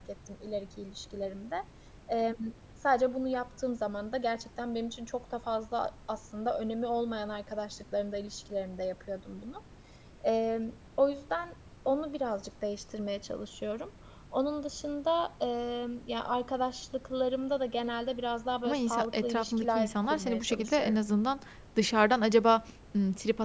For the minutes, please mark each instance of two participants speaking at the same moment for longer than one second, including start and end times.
18.6-21.0

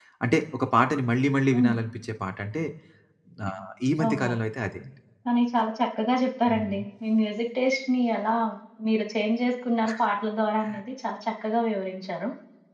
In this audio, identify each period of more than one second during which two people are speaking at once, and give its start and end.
none

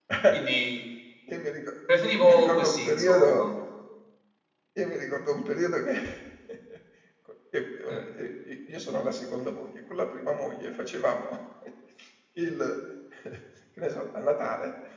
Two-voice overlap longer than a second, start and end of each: 2.2-3.4

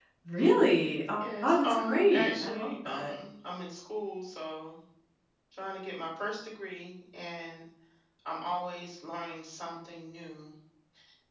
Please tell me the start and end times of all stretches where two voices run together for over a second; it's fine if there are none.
1.2-3.1

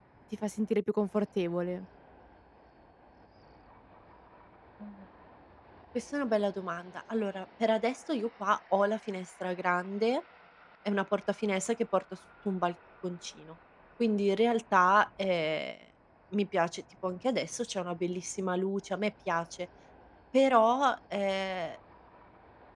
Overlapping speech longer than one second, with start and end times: none

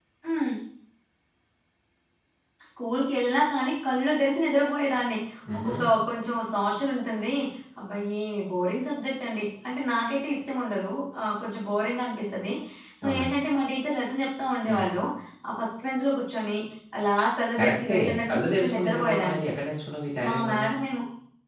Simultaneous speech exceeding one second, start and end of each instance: 17.6-19.4

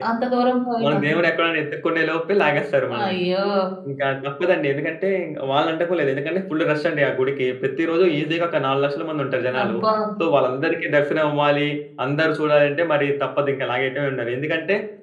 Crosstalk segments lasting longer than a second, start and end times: none

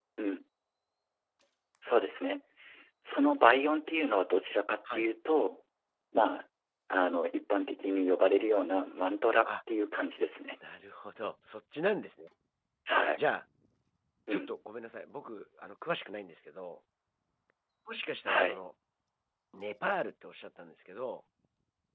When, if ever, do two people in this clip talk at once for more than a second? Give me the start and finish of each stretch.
none

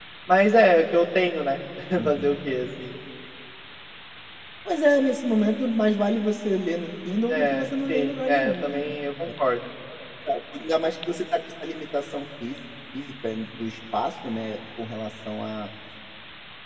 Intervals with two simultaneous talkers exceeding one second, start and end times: 7.3-8.8

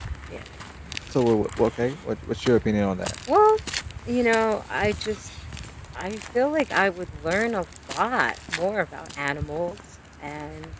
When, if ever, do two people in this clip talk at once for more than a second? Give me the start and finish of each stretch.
none

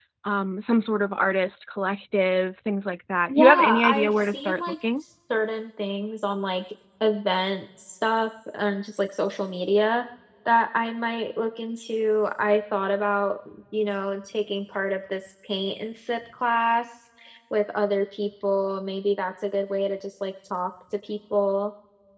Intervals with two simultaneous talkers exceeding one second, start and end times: 3.3-4.6

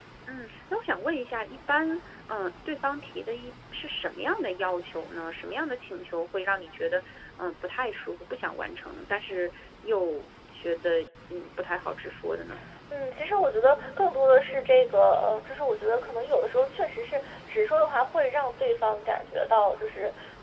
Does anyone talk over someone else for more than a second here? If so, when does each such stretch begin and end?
none

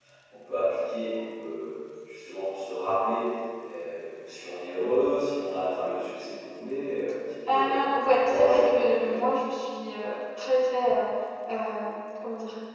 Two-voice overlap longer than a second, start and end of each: 7.5-9.2

